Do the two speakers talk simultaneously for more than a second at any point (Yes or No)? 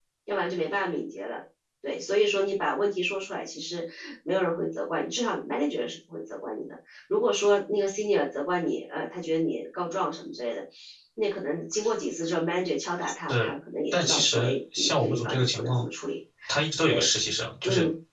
Yes